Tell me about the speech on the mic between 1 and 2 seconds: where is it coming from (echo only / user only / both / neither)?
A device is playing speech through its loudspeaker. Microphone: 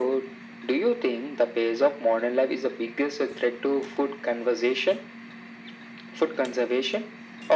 echo only